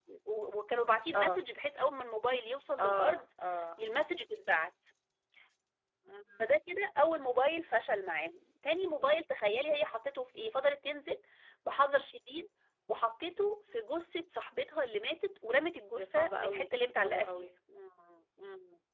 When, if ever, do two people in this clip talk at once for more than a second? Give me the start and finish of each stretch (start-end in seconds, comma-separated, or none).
16.0-17.5